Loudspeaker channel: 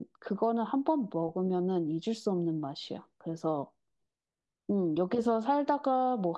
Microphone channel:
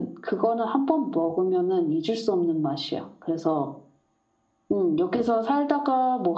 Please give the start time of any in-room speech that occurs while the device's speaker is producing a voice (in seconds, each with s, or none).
none